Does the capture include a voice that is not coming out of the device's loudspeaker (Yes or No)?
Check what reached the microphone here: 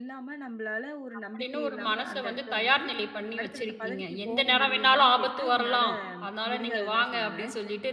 Yes